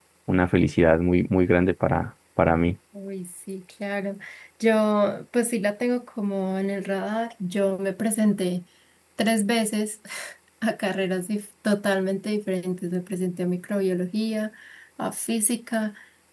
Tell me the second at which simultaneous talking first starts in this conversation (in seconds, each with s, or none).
none